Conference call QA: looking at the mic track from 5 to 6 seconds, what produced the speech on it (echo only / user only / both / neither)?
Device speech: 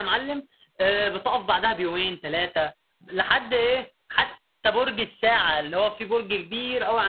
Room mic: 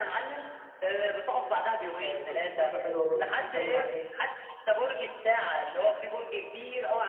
echo only